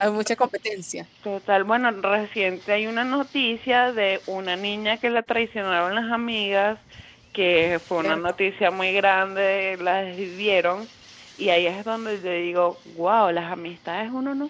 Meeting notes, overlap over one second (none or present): none